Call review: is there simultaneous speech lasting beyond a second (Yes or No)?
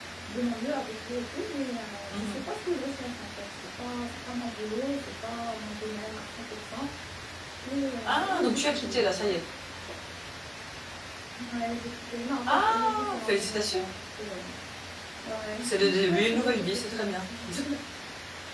Yes